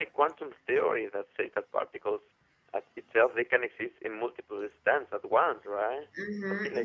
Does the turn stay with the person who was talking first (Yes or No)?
No